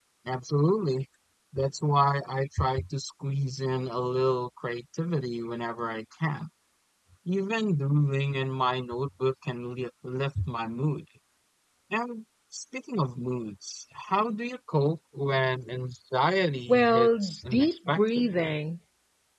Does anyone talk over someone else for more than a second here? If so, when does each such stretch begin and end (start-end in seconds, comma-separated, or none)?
16.7-18.6